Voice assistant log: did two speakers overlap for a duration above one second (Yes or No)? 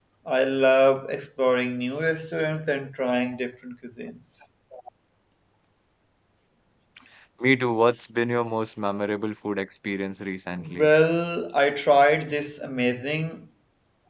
No